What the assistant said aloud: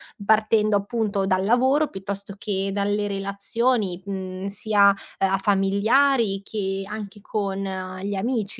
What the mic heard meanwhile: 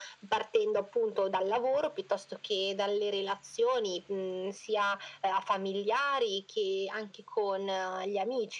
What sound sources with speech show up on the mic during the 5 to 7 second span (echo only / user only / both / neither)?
echo only